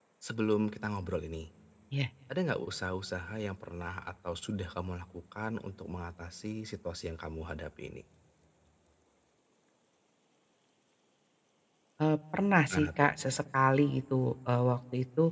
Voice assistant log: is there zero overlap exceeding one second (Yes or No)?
Yes